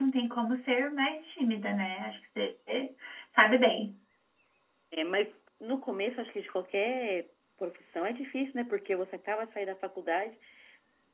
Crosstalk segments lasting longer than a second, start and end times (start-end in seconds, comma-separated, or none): none